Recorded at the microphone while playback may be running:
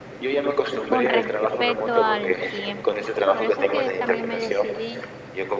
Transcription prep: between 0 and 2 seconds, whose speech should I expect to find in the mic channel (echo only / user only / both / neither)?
both